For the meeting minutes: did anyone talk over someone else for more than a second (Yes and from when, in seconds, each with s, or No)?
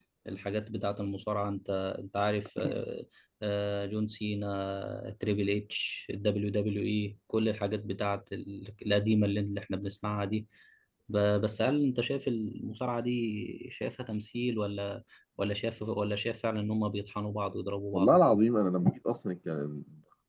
No